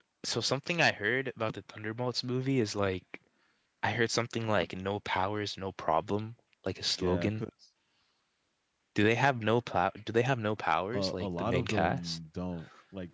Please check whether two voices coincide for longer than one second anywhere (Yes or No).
Yes